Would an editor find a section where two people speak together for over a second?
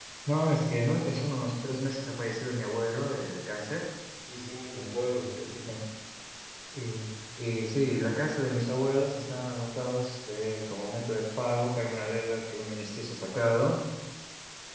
No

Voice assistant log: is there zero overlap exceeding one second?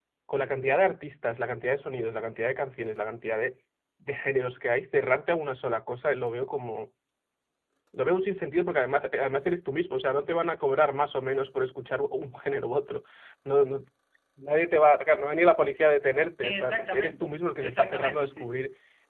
No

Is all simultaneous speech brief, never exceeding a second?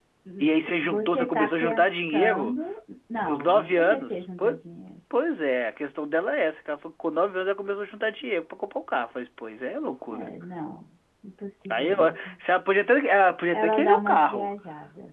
No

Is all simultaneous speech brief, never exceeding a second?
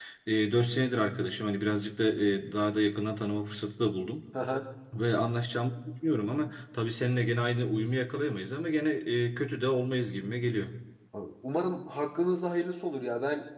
Yes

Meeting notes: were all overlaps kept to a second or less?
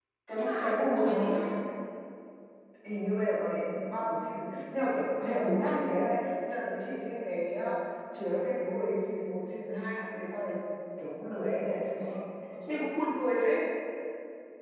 No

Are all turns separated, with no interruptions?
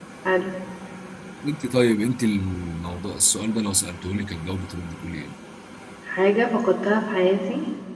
Yes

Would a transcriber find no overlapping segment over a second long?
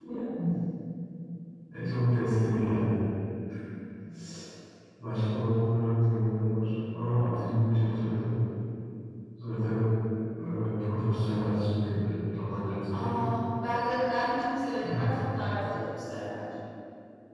Yes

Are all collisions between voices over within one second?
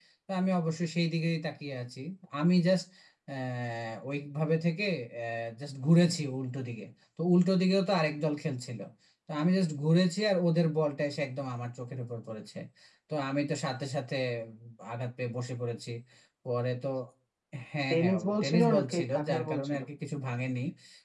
No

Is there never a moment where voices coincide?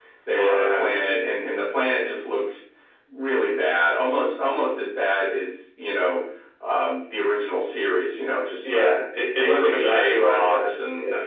No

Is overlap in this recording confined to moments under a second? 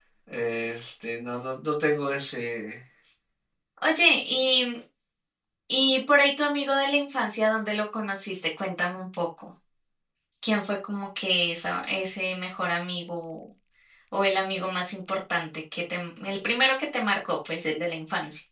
Yes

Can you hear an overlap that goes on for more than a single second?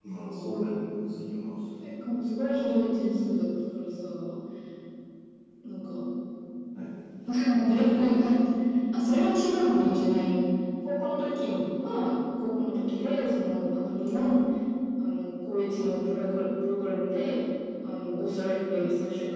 No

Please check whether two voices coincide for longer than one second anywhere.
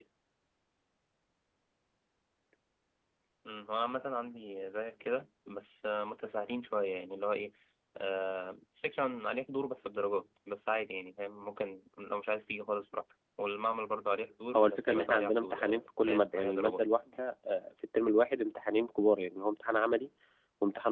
Yes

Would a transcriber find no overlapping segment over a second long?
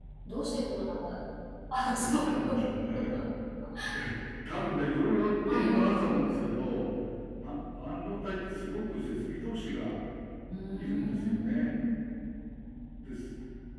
No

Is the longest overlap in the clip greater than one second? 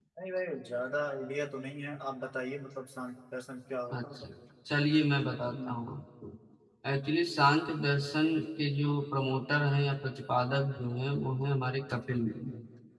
No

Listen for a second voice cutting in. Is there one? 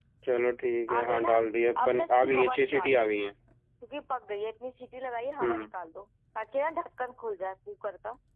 Yes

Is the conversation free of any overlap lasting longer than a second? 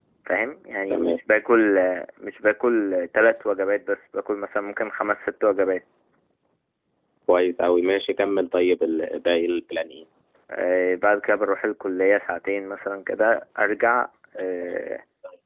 Yes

